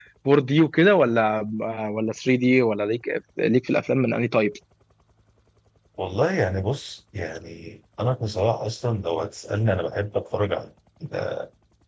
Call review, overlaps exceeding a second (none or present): none